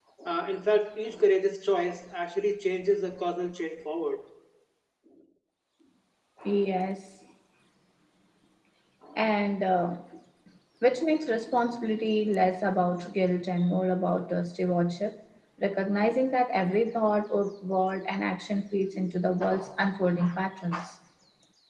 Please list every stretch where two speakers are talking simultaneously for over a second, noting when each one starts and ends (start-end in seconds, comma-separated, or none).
none